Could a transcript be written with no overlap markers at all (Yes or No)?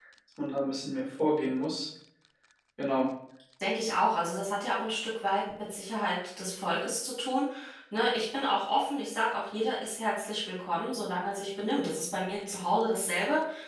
Yes